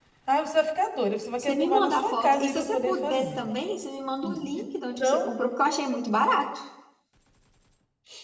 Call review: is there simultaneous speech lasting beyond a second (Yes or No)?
Yes